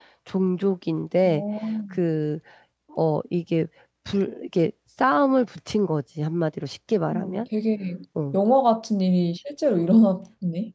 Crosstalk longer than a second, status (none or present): none